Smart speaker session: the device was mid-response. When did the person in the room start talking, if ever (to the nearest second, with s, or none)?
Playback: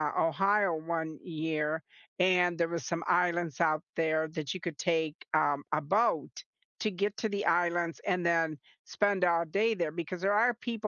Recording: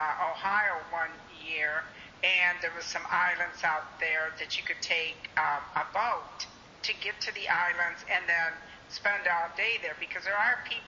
none